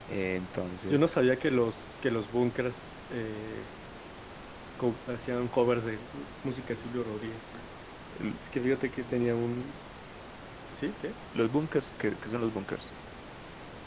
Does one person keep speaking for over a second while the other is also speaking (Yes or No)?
No